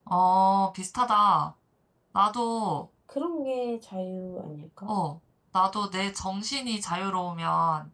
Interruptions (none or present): none